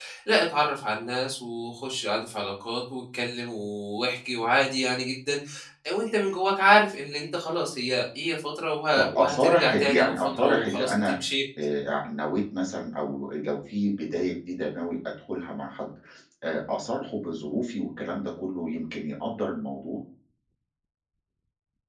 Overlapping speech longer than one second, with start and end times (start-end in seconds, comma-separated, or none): 9.0-11.2